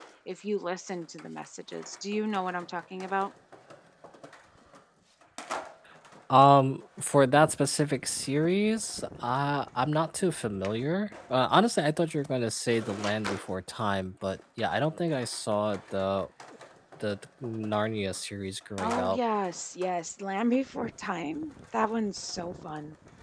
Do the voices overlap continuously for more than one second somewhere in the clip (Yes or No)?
No